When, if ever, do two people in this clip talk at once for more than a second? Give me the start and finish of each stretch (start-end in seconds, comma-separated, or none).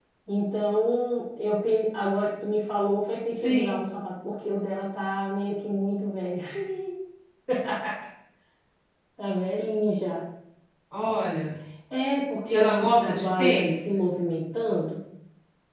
12.5-13.9